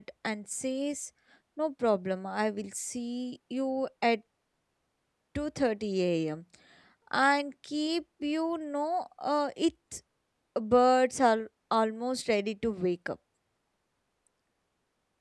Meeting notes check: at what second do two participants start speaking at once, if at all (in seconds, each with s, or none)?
none